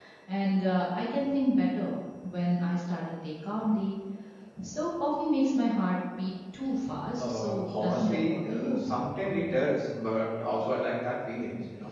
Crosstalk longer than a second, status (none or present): present